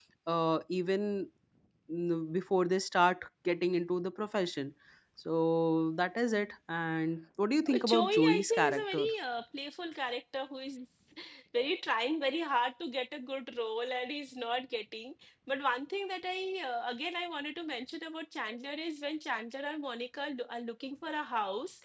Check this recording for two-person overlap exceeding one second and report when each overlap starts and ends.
7.7-9.1

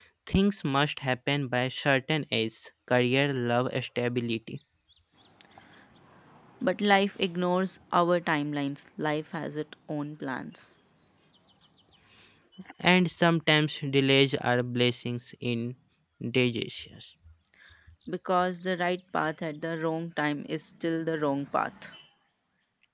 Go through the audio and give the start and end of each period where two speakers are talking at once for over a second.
none

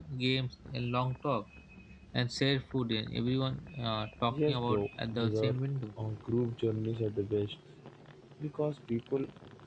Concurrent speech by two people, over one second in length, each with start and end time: 4.3-5.5

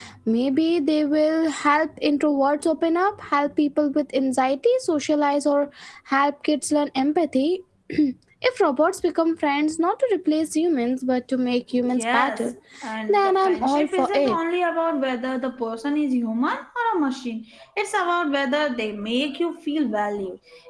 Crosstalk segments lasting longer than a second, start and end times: 13.1-14.4

